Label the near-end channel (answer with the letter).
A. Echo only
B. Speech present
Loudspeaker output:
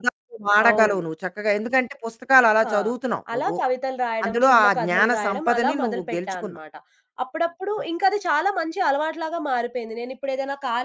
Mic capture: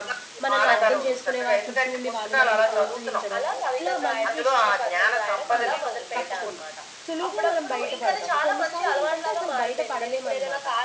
B